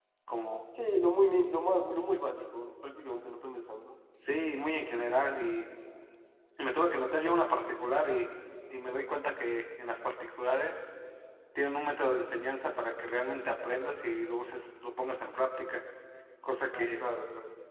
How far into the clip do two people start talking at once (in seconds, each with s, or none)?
none